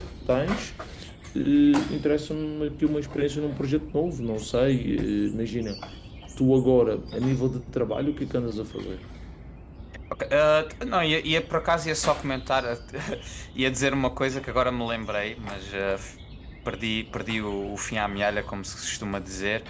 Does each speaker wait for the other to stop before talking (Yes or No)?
Yes